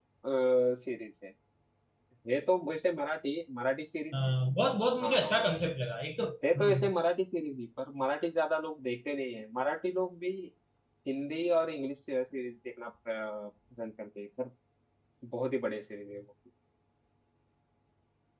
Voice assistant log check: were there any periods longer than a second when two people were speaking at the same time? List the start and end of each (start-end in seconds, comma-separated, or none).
none